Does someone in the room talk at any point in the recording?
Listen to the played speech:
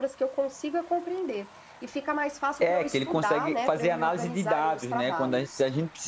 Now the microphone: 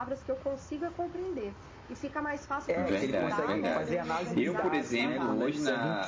Yes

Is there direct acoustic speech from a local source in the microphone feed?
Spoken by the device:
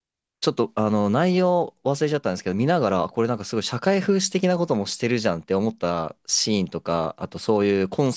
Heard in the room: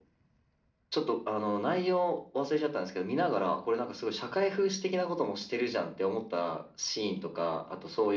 No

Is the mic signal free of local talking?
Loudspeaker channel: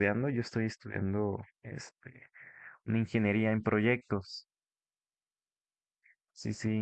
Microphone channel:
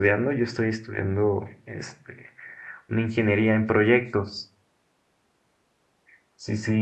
Yes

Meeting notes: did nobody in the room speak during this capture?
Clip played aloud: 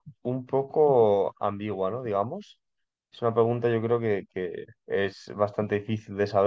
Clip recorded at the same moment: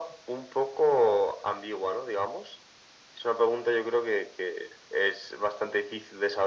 Yes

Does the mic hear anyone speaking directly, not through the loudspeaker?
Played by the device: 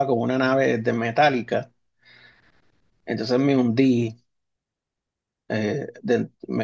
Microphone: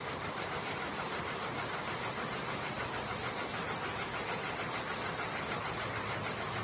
No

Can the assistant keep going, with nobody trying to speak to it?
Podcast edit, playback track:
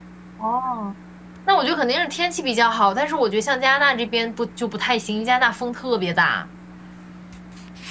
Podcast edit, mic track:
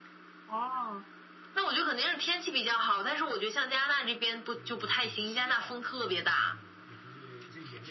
No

